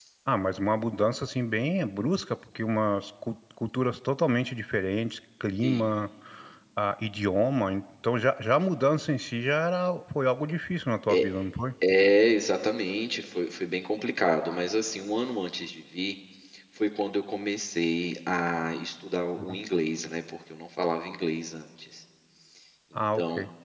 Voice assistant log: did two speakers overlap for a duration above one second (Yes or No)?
No